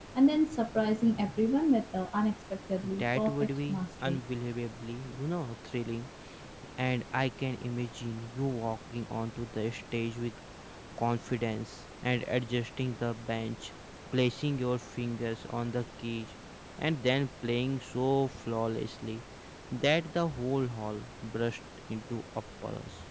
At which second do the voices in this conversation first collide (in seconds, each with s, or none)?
2.8 s